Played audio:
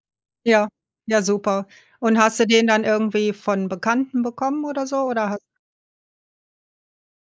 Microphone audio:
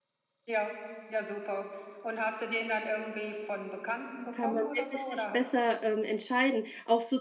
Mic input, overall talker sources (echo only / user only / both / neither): both